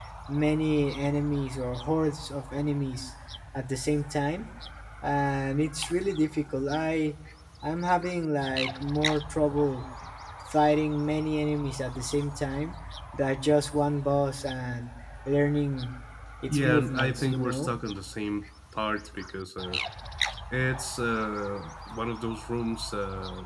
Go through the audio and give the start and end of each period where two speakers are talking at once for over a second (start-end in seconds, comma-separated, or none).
16.5-17.7